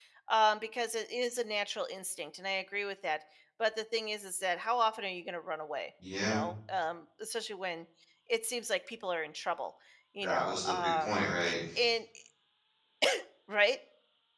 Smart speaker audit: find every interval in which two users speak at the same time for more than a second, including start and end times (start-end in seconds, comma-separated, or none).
10.2-11.5